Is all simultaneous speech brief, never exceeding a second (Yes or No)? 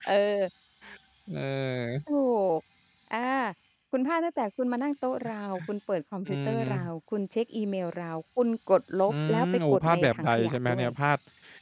No